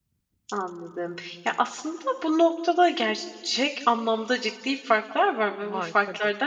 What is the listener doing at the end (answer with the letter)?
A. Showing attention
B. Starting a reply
A